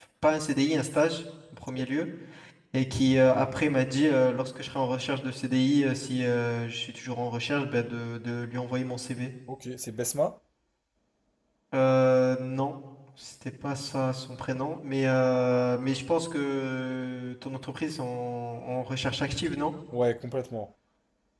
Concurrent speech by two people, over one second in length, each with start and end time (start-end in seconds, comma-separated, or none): none